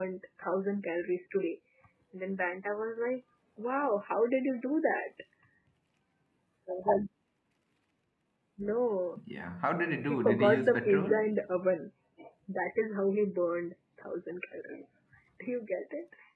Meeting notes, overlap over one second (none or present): present